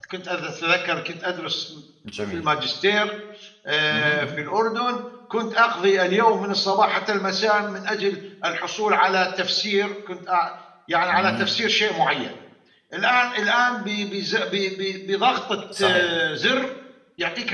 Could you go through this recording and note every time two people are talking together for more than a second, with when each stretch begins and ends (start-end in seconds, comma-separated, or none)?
none